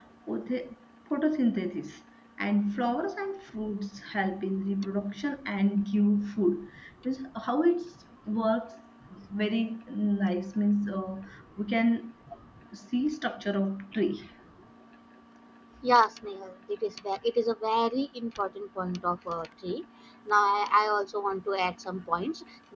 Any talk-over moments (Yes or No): No